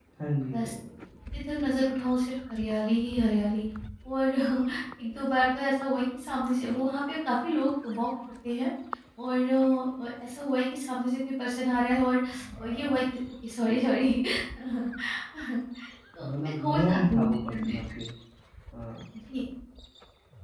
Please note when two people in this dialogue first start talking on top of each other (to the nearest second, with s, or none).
16 s